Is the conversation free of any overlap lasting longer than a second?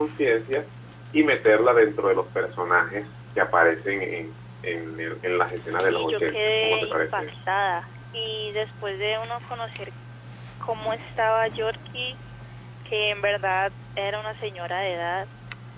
No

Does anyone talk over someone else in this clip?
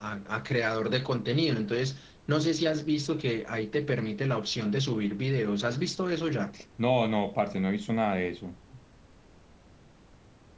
No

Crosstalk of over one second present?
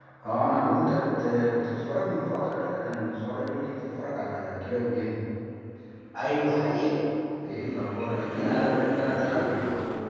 Yes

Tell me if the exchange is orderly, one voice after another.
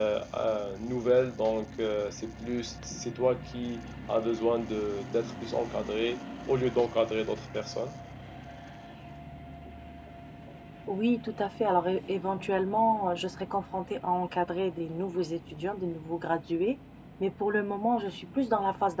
Yes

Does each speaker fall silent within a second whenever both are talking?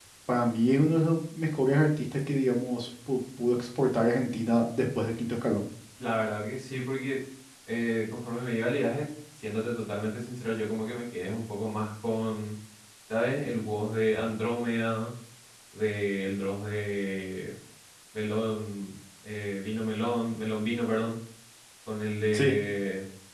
Yes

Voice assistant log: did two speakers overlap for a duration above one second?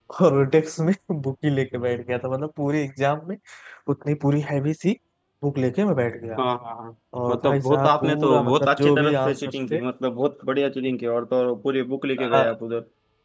Yes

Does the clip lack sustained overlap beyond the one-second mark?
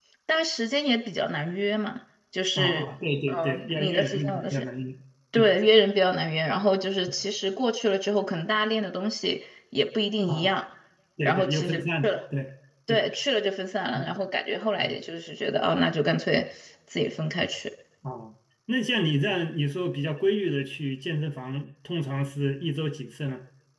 No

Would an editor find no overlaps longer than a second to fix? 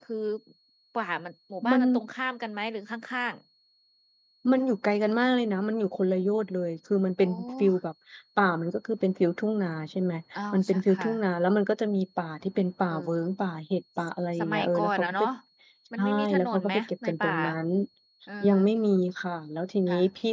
No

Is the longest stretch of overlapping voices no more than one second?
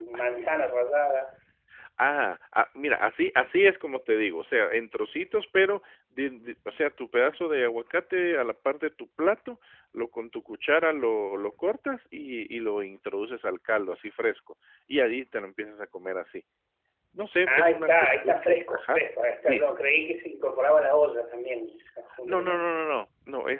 No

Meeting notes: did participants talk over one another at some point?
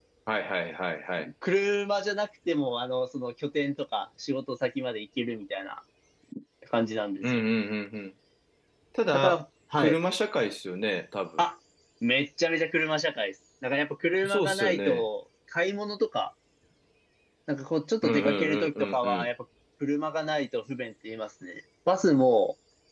Yes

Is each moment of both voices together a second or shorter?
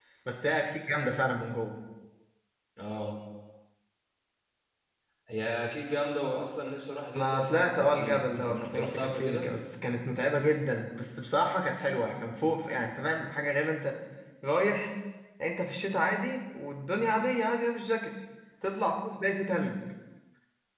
No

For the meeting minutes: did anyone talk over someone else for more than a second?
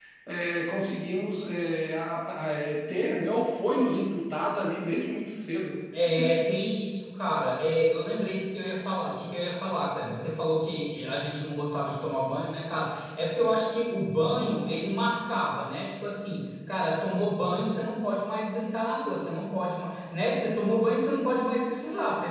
No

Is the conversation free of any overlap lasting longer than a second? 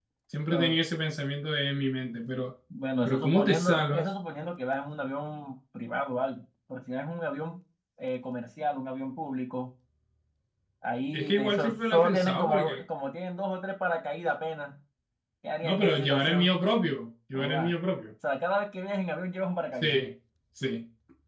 No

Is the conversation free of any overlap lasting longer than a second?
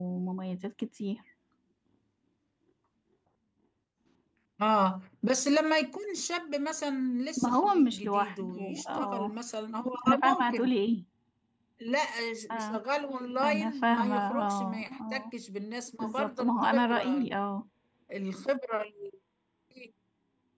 No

